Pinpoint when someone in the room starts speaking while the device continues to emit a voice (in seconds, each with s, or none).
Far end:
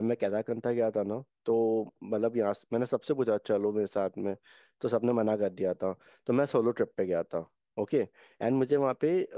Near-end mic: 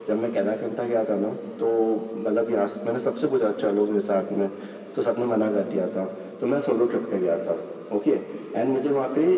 none